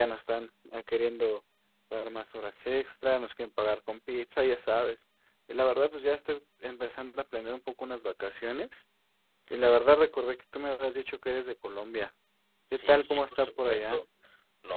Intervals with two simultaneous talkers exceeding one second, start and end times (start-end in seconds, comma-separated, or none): 12.7-14.0